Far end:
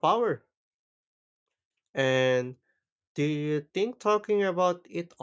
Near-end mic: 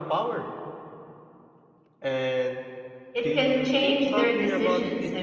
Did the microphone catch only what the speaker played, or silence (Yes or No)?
No